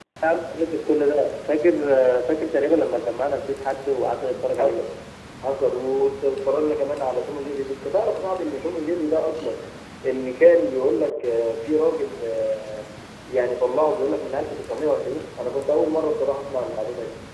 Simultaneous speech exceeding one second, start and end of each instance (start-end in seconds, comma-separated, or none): none